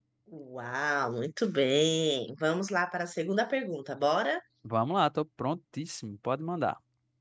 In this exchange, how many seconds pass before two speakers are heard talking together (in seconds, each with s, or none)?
none